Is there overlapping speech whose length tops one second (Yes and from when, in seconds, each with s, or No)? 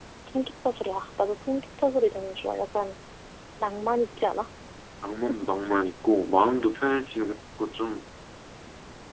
No